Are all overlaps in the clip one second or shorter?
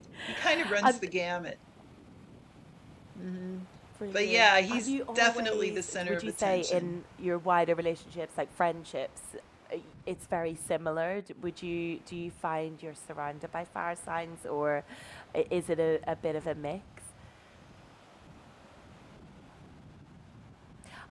No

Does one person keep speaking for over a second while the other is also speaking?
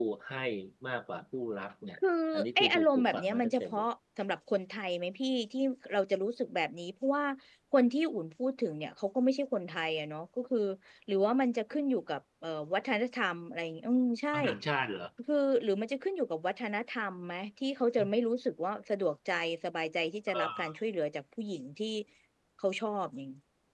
Yes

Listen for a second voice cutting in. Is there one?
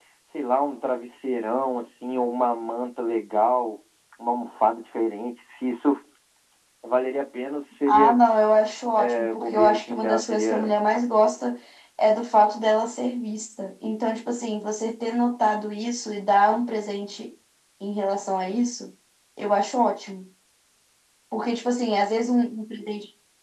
Yes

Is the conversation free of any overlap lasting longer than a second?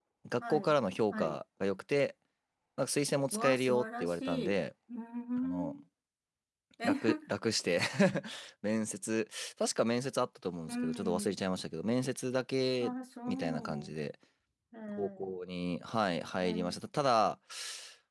No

